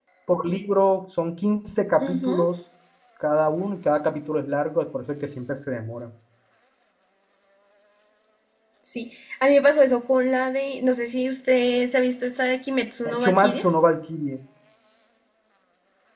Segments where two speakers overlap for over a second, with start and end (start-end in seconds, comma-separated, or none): none